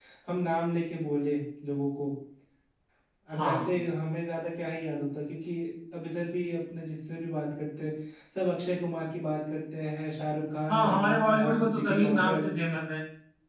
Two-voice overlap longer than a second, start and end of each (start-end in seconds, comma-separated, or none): 10.7-12.5